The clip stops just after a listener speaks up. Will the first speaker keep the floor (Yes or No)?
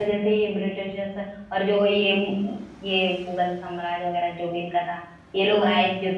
Yes